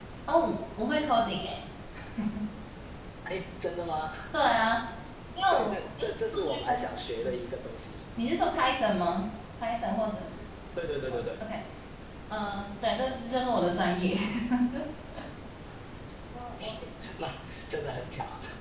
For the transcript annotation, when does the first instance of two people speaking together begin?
5.5 s

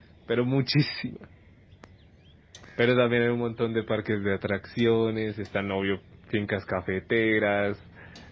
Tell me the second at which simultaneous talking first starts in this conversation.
none

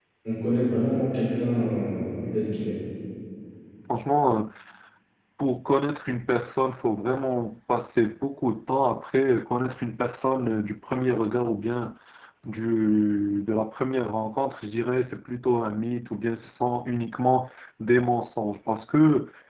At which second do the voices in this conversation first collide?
none

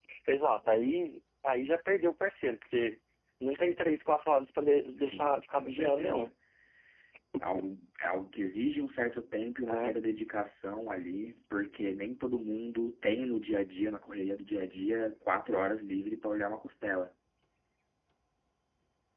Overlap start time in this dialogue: 5.0 s

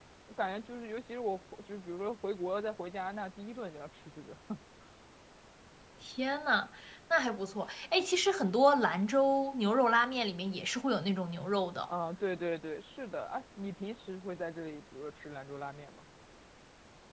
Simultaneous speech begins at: none

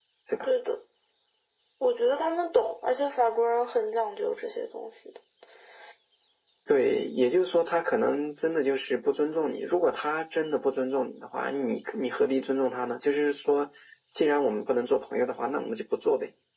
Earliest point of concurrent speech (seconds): none

